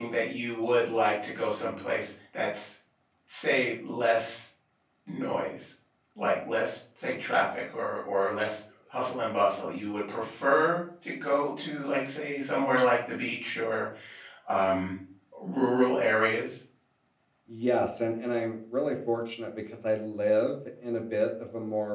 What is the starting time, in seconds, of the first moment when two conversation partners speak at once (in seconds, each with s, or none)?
none